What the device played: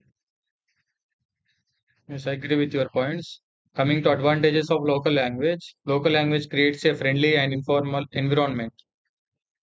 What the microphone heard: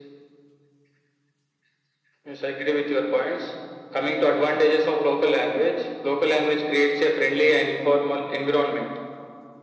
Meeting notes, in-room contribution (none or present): none